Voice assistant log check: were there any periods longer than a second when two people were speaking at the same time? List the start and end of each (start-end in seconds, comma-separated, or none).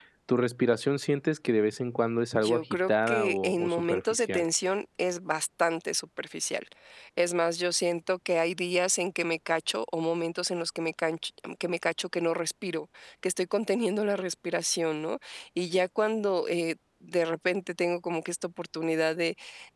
2.3-4.4